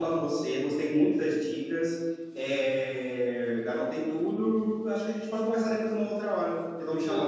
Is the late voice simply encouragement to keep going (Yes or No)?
No